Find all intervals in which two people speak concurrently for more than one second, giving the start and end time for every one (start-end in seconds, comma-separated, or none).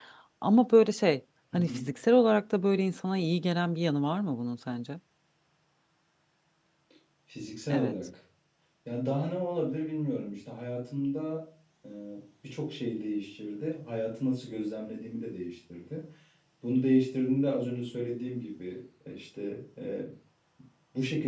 none